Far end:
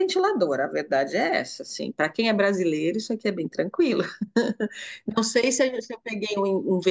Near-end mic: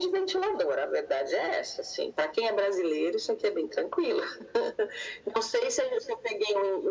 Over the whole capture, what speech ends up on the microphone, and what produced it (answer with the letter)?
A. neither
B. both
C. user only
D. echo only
D